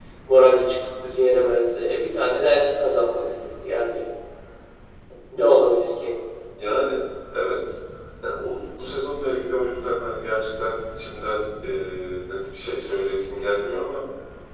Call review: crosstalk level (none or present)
none